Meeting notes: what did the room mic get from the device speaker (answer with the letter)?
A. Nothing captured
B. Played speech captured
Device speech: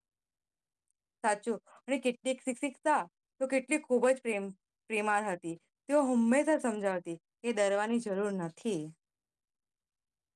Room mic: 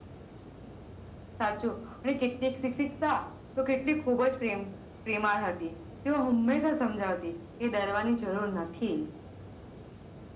B